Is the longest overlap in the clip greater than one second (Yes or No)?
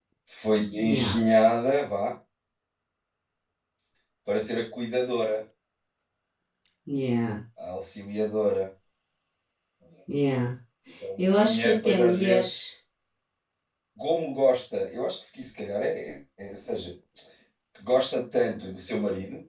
Yes